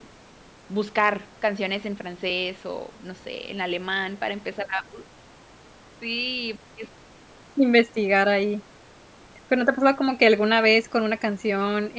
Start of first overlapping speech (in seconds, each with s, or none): none